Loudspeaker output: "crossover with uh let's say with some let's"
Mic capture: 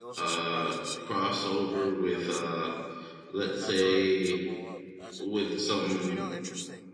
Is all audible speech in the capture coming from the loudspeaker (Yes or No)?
No